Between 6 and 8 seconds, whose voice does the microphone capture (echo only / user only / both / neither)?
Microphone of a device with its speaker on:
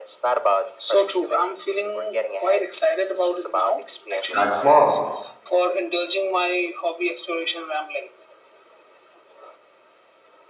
echo only